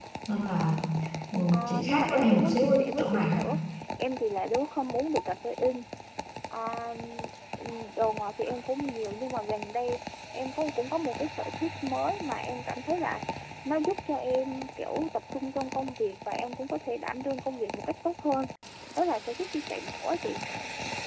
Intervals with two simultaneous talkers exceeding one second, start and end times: 1.5-3.4

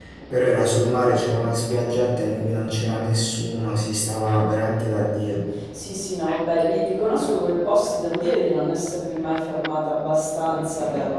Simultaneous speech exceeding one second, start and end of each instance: none

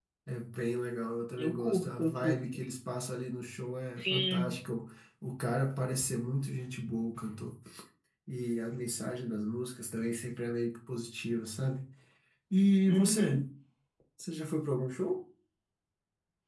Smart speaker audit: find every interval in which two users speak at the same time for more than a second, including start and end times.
1.4-2.6

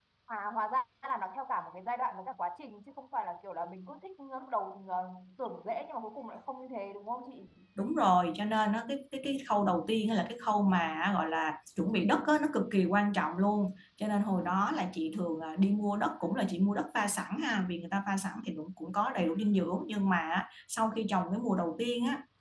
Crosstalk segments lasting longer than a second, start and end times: none

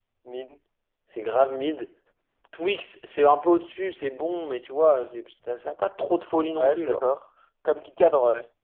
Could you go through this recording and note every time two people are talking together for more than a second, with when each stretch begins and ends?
none

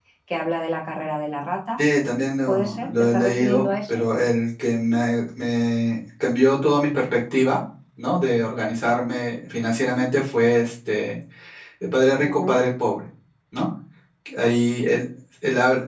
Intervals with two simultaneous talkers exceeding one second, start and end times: 2.5-4.0

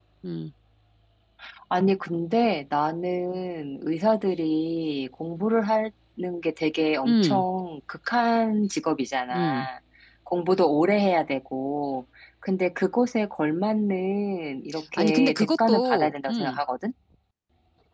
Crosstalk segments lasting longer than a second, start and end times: 15.0-16.6

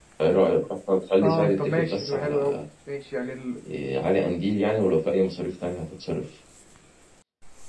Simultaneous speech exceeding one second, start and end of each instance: 1.2-2.5

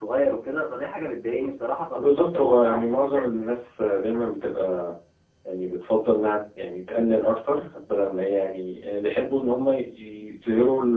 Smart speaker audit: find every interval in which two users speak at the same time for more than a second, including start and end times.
1.9-3.4

